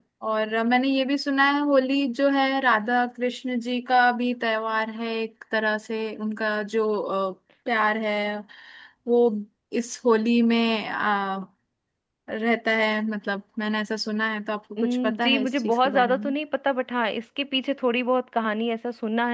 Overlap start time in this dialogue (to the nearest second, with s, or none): 15 s